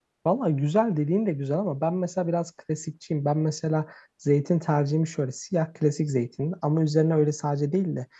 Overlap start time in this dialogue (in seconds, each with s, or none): none